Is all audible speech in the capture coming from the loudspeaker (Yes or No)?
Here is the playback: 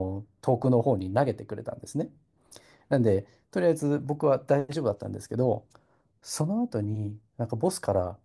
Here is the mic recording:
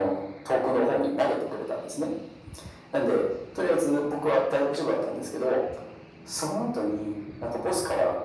Yes